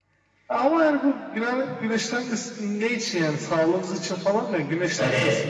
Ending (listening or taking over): taking over